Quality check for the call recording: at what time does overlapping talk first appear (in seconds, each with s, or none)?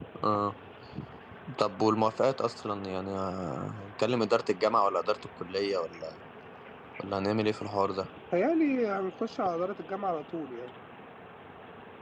none